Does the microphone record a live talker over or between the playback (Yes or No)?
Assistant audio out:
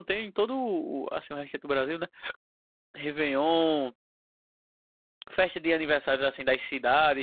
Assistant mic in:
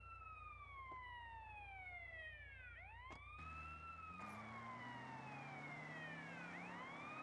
No